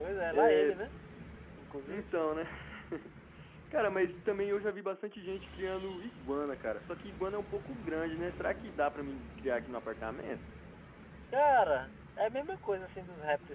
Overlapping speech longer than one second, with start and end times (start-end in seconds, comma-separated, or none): none